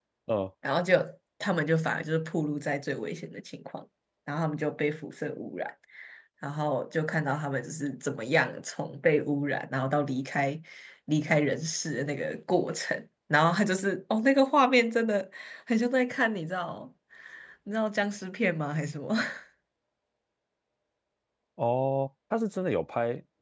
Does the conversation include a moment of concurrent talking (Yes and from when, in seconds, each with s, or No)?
No